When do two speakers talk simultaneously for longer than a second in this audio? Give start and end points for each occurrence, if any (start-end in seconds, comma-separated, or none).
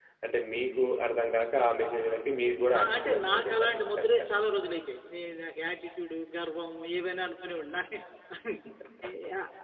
2.8-4.3